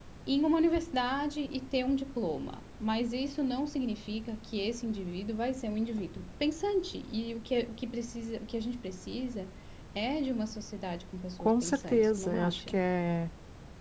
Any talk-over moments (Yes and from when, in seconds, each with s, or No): Yes, from 11.4 s